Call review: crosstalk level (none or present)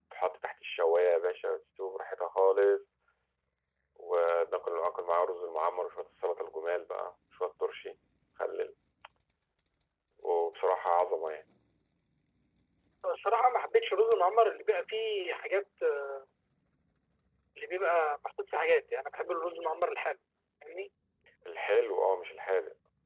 none